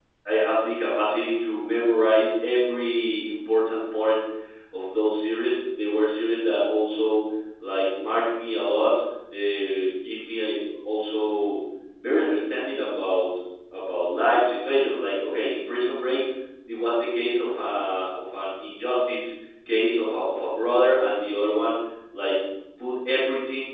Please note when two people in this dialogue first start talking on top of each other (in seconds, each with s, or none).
none